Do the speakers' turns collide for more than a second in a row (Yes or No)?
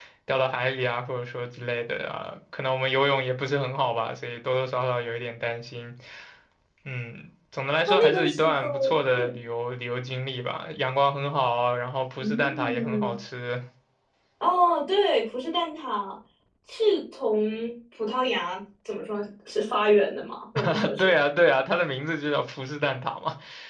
Yes